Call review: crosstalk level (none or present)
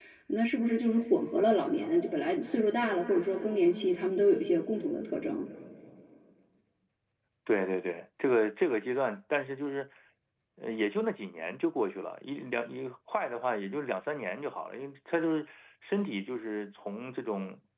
none